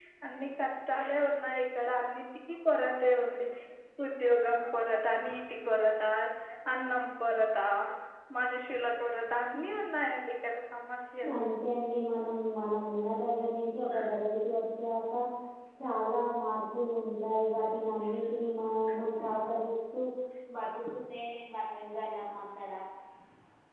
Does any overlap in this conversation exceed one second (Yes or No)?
No